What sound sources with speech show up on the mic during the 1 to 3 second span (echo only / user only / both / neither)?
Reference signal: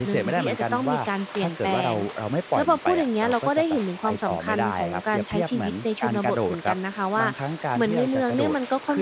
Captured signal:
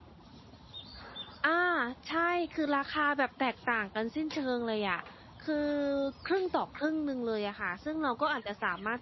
user only